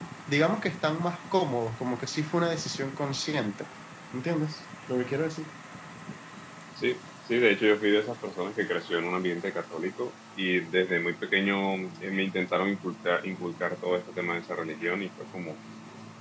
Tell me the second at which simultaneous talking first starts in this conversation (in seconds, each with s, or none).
none